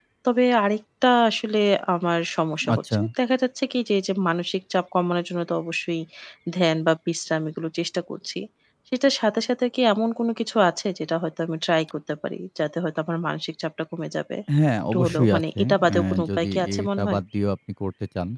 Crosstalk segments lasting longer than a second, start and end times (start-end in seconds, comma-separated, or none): 14.9-17.2